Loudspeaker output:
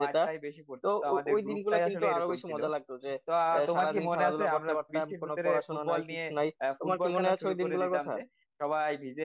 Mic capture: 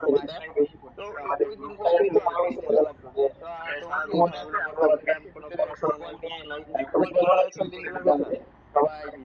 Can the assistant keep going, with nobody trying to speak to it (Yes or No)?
Yes